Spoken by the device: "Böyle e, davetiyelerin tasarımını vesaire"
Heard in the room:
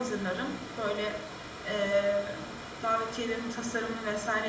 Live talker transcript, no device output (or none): none